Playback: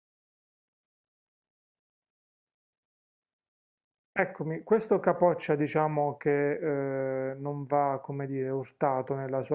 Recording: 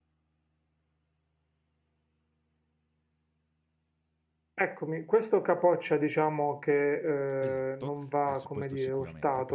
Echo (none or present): present